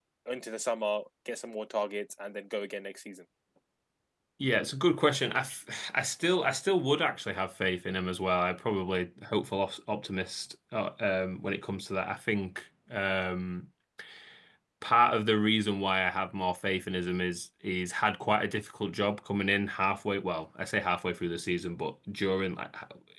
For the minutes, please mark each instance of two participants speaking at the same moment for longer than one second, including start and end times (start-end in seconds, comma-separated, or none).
none